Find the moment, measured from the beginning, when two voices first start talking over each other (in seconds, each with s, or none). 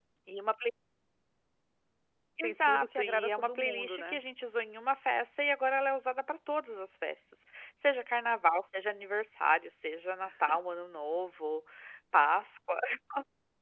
2.4 s